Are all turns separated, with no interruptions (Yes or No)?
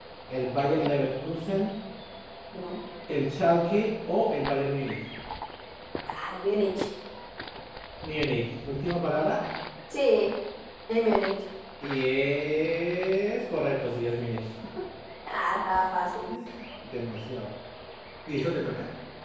Yes